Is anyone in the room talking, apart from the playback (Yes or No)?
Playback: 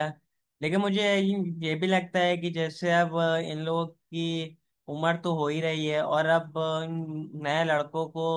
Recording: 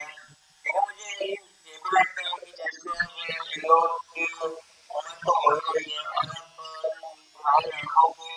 No